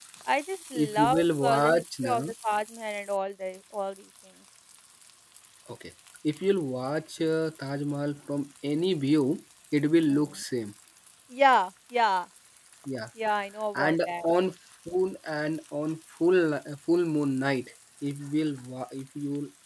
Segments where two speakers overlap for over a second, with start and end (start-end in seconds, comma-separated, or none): 0.8-2.3